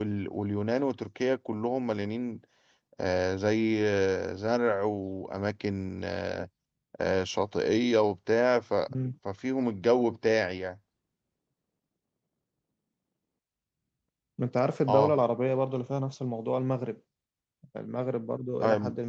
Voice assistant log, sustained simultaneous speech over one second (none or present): none